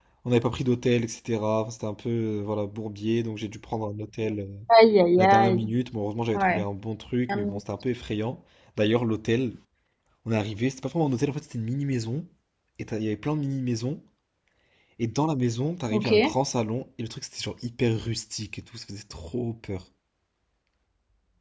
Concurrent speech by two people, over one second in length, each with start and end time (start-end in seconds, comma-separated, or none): none